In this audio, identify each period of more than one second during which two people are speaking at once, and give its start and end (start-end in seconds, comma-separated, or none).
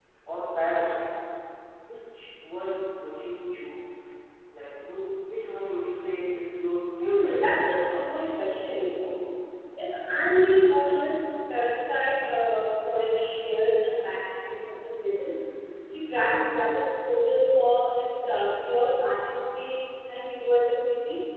7.0-8.2